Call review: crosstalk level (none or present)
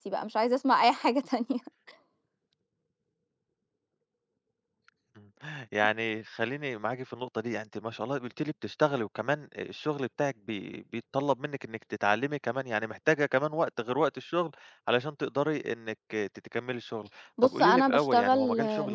present